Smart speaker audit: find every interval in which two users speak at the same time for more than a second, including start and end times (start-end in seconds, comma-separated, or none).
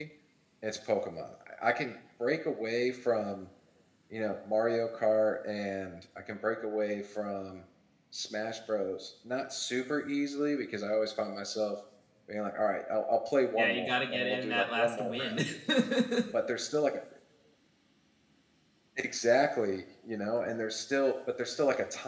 13.6-15.4